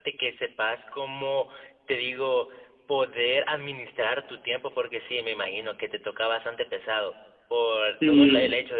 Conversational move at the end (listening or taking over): listening